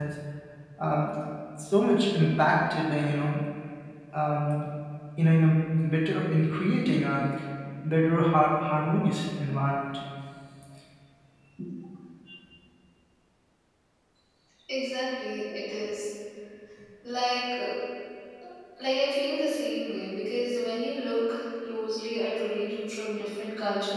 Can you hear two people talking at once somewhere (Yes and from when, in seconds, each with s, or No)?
No